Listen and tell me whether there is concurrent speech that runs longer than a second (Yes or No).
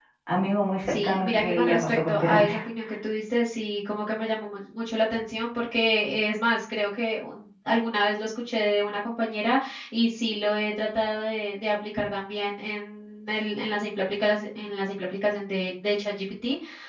Yes